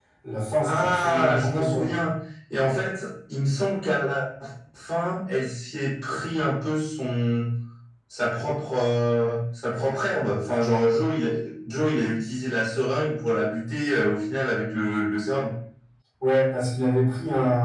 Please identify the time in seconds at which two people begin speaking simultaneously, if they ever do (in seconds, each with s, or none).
0.6 s